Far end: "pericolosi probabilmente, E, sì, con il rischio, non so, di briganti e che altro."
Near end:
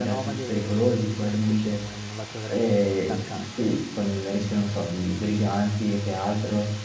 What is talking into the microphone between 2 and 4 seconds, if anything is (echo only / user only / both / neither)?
both